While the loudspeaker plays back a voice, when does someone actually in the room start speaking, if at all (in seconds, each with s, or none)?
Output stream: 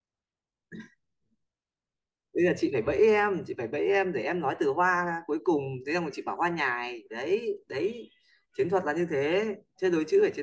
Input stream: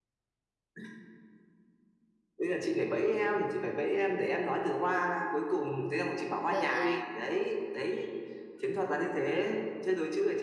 6.5 s